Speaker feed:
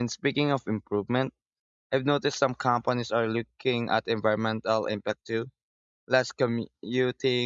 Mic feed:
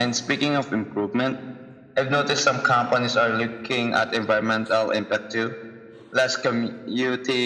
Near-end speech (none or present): none